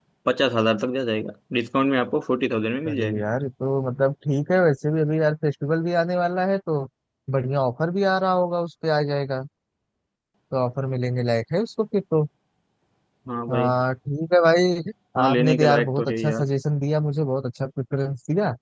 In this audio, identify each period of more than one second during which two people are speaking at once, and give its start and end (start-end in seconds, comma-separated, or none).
15.2-16.5